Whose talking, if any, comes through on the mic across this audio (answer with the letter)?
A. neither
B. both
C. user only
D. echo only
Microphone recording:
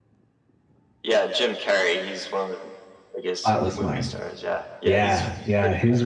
B